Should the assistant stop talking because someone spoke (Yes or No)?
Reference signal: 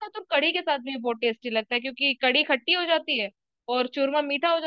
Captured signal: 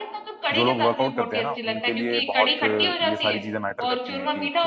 Yes